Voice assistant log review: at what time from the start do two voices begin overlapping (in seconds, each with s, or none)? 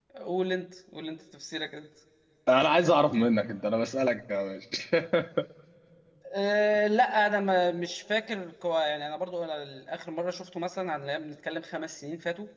none